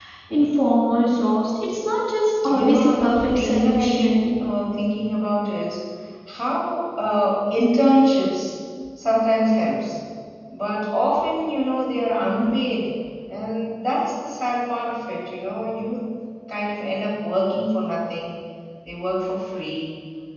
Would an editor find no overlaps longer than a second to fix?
No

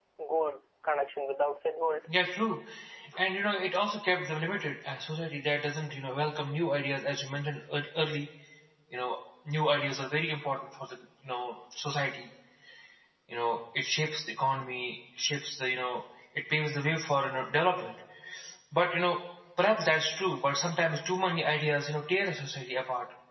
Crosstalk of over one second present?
No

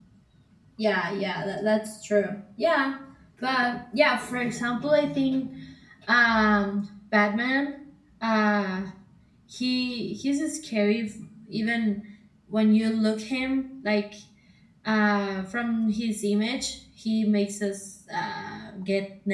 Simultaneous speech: No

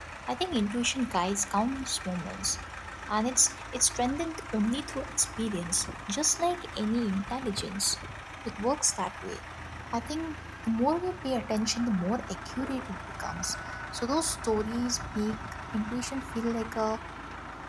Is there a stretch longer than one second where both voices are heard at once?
No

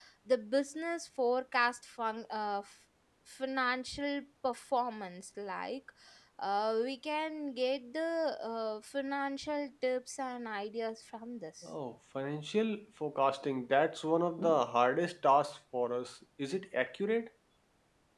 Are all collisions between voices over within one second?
Yes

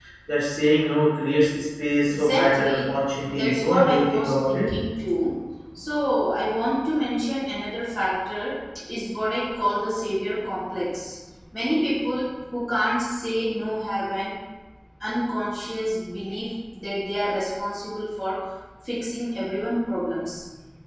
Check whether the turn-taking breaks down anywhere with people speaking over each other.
Yes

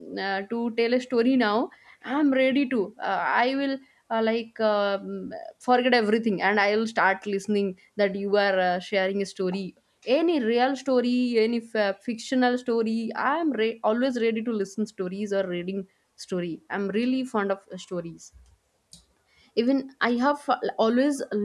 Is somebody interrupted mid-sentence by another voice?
No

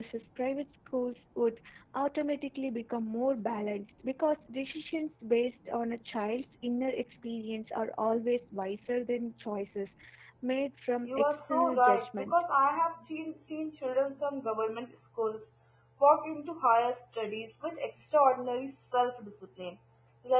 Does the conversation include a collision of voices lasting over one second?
Yes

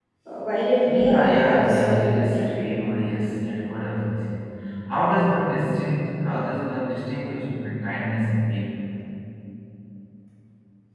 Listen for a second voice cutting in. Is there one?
Yes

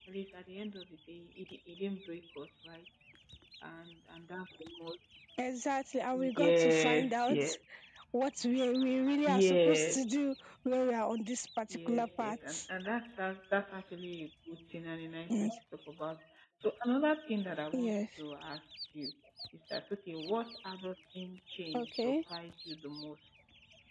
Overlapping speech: Yes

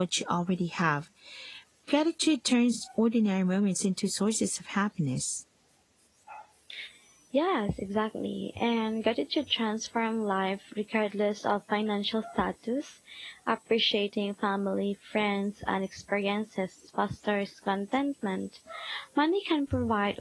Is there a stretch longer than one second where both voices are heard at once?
No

